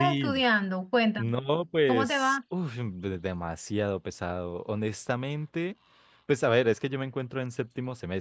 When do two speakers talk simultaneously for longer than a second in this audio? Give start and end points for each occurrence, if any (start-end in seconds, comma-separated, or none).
none